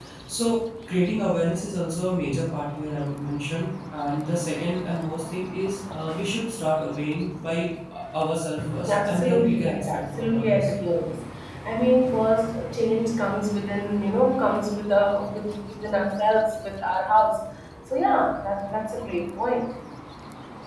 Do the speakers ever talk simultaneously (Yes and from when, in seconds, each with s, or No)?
Yes, from 8.9 s